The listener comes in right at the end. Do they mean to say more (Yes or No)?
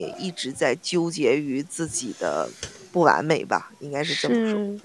Yes